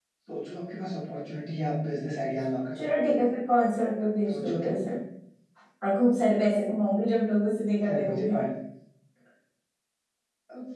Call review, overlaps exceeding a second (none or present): none